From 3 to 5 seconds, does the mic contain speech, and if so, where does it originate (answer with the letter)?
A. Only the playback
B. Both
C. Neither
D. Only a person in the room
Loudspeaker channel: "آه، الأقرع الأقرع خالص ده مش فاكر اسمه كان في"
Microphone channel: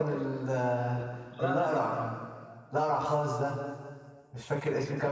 A